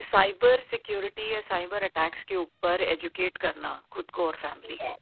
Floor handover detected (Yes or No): Yes